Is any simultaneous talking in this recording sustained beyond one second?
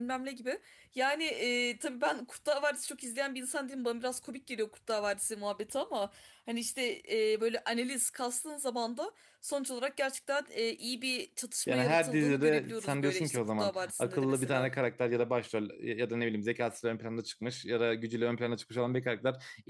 Yes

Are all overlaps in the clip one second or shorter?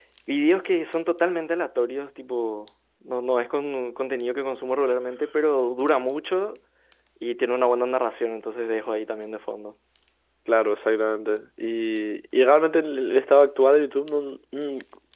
Yes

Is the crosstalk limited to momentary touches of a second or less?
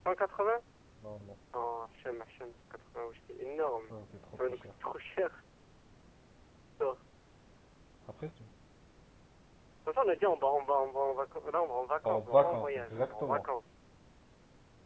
No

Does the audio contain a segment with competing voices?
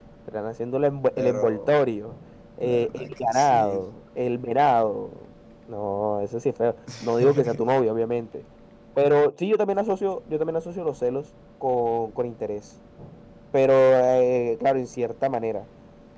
Yes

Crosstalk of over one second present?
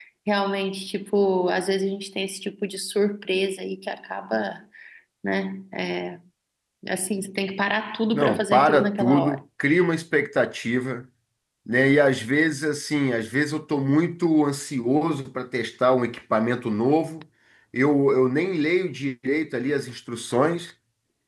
Yes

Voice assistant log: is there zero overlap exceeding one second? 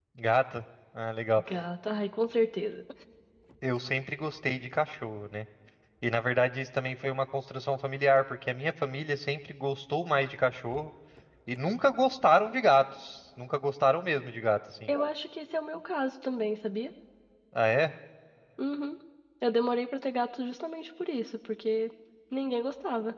Yes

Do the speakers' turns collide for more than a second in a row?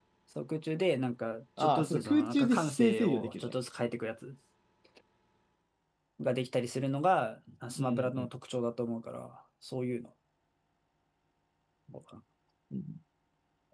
Yes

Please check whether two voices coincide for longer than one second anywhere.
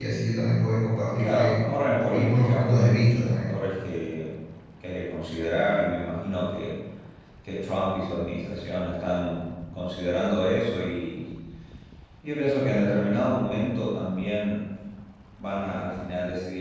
Yes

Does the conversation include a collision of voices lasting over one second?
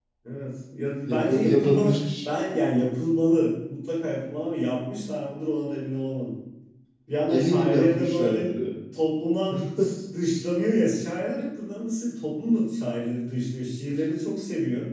Yes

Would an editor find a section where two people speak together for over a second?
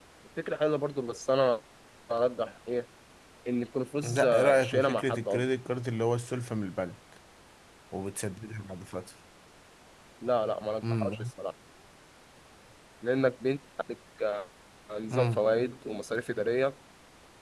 Yes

